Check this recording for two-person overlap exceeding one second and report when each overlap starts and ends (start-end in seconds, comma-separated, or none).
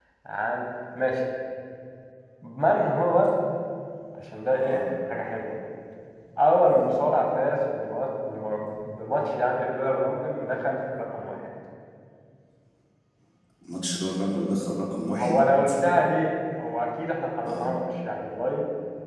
none